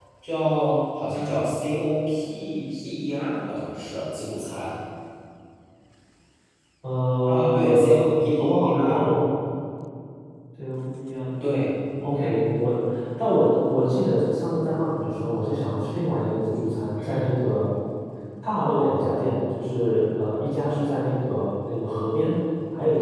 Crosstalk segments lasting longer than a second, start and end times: 7.3-9.1

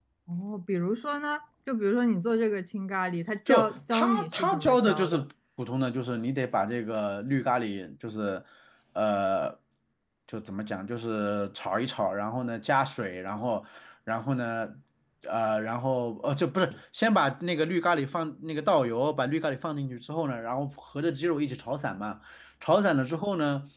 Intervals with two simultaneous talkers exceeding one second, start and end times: 3.5-5.2

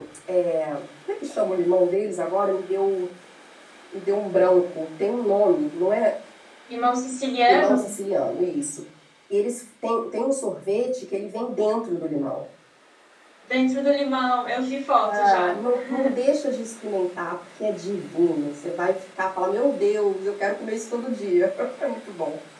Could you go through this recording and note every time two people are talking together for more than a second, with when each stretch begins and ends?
none

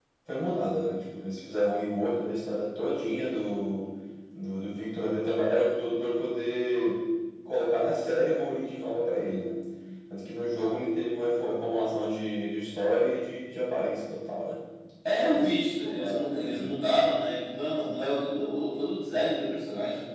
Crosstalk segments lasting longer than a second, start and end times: 15.4-16.7

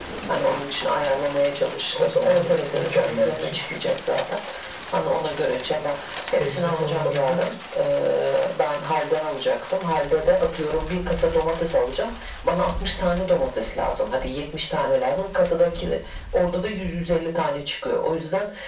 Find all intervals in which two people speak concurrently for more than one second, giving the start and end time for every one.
1.9-3.6, 6.3-7.5

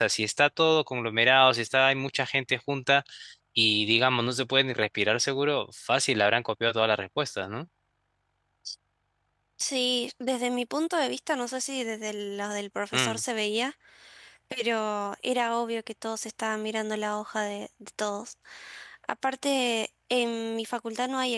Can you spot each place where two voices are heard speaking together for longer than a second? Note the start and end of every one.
none

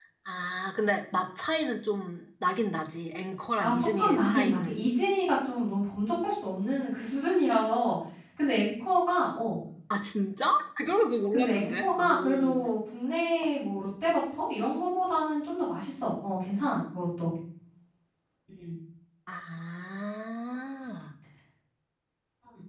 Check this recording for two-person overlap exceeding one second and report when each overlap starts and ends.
3.6-4.8, 11.3-12.6

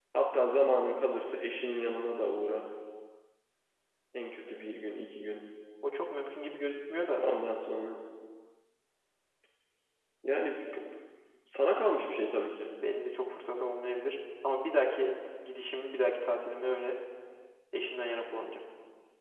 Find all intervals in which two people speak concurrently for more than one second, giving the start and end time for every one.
none

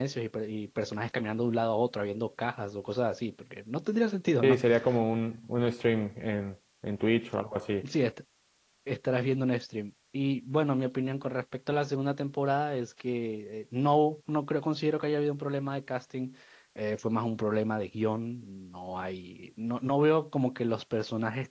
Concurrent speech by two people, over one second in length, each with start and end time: none

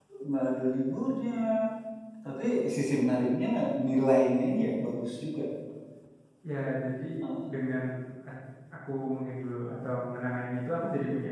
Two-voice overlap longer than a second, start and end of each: none

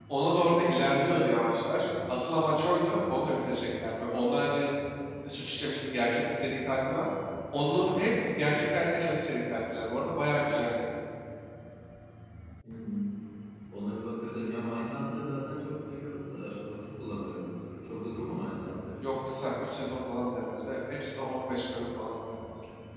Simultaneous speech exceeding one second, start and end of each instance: none

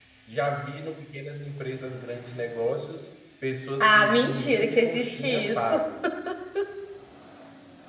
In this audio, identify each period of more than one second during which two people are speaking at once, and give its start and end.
3.8-5.8

